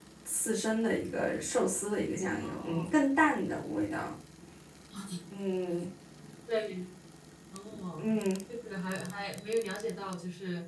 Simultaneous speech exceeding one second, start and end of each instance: none

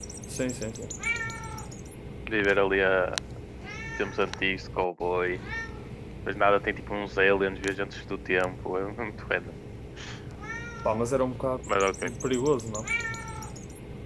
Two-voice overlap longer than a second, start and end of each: none

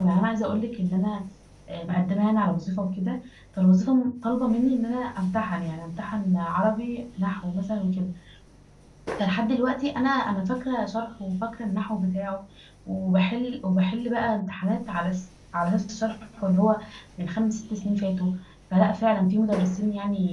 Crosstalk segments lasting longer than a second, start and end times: none

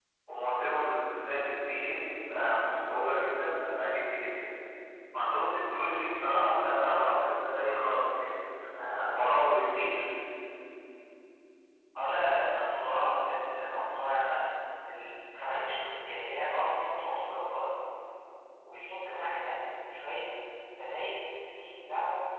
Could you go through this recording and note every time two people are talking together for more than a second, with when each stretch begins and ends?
none

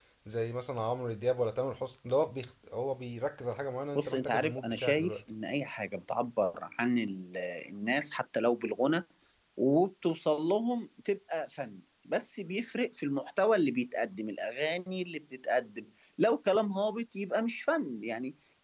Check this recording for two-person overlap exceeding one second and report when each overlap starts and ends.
4.0-5.2

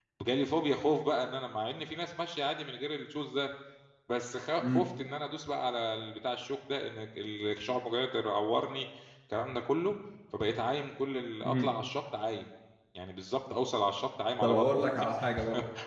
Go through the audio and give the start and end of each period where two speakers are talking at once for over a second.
none

